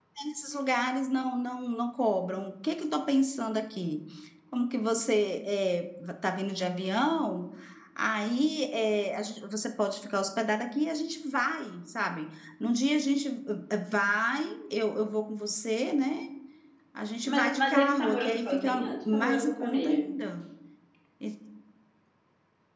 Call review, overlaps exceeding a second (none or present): present